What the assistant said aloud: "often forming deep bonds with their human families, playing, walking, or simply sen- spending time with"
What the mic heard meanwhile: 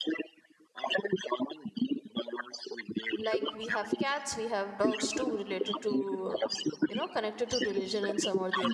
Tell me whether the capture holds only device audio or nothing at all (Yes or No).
No